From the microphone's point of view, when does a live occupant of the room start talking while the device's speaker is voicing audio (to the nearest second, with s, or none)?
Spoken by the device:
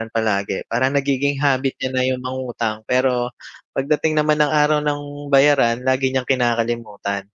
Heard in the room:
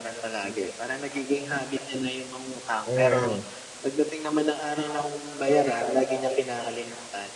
3 s